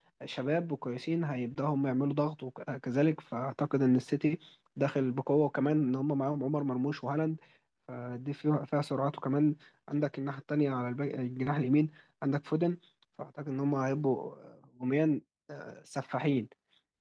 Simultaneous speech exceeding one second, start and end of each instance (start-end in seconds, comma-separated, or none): none